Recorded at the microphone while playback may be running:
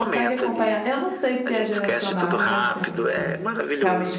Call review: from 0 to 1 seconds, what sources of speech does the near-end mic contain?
both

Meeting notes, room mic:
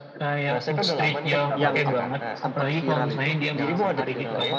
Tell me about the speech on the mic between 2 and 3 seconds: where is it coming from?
both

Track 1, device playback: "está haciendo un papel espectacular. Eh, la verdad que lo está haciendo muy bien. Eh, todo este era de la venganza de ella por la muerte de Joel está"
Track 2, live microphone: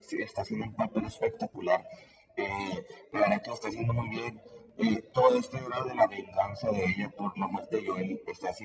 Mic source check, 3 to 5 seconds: echo only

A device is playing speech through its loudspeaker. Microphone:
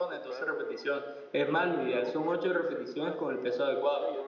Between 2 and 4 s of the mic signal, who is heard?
both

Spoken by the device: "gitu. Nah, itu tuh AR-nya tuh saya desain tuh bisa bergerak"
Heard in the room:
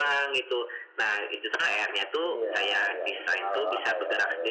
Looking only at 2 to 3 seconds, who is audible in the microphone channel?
both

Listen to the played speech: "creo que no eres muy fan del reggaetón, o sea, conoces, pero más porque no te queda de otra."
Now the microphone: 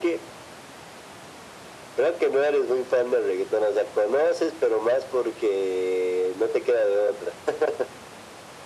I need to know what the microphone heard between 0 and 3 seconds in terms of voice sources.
echo only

